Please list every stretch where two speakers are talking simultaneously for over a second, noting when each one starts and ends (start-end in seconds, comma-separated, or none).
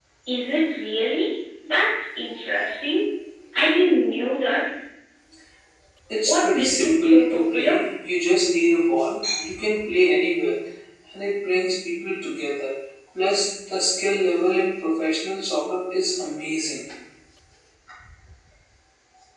6.2-7.8